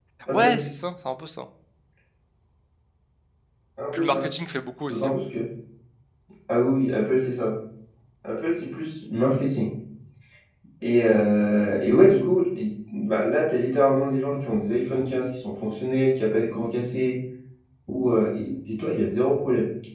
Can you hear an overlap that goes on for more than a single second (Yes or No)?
No